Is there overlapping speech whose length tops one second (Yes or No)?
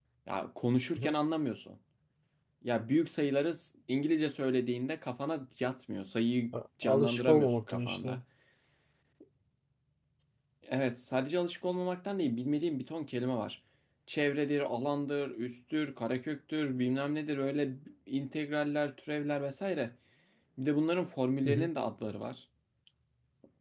Yes